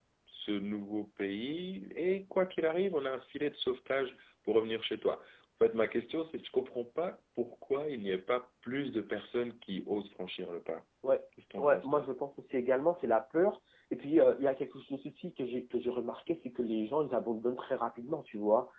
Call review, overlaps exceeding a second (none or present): none